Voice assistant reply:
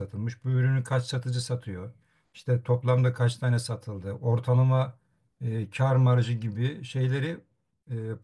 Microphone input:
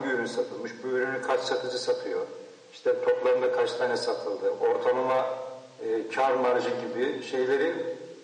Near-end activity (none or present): none